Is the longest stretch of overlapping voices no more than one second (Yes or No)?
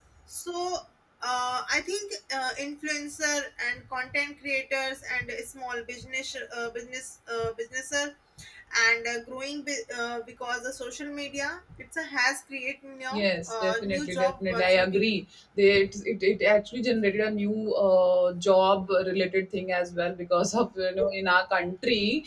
No